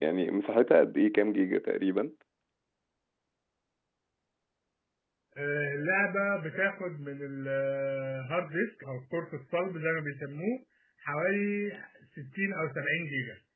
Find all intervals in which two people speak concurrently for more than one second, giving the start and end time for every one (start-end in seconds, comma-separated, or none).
none